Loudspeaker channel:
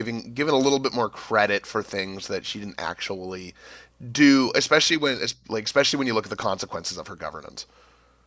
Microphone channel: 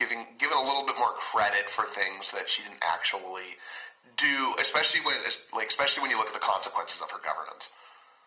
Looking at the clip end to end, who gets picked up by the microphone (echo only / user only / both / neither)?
echo only